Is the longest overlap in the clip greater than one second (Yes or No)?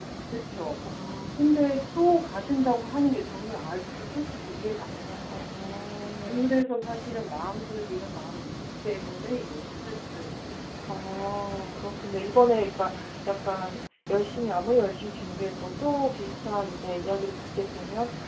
No